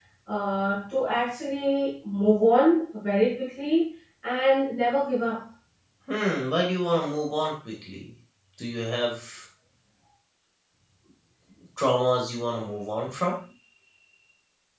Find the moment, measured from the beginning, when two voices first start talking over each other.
none

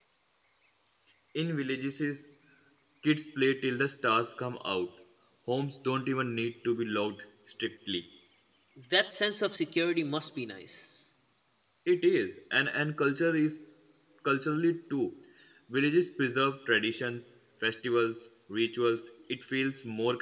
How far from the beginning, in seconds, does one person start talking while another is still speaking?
none

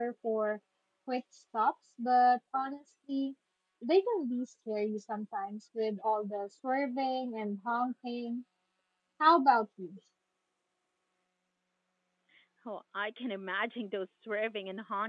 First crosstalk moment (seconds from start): none

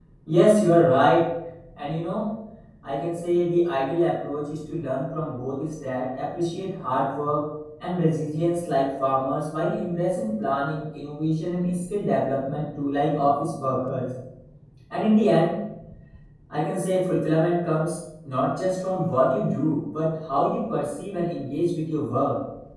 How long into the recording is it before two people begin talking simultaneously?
none

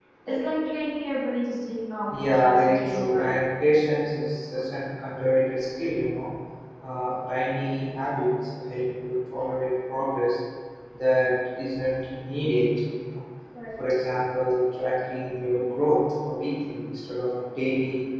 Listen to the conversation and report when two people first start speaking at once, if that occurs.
2.1 s

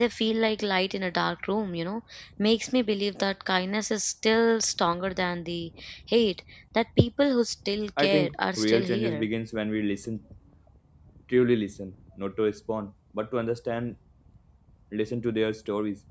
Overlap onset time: 8.0 s

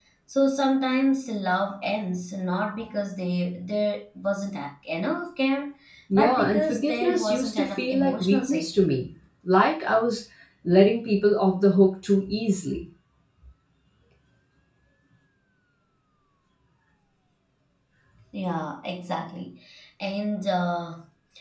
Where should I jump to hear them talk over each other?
6.2 s

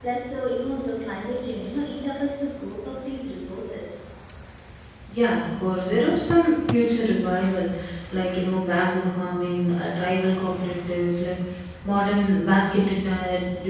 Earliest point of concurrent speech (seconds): none

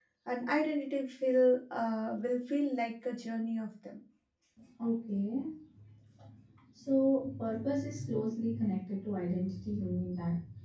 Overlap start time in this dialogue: none

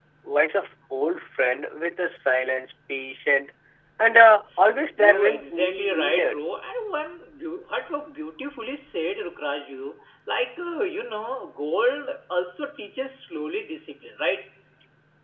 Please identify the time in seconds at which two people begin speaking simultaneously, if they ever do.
4.9 s

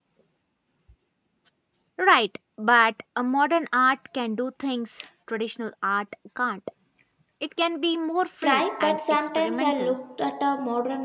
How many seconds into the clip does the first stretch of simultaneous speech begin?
8.4 s

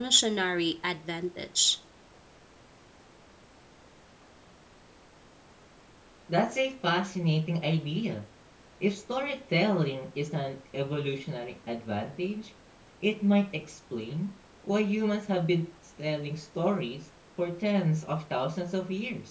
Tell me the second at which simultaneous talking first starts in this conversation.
none

